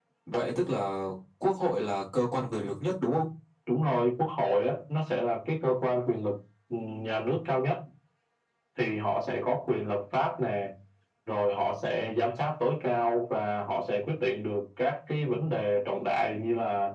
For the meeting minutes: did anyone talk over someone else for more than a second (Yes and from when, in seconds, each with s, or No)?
No